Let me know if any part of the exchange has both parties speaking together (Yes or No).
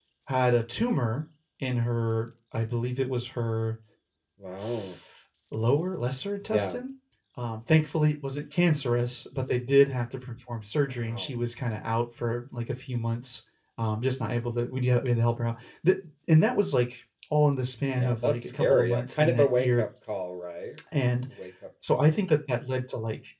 Yes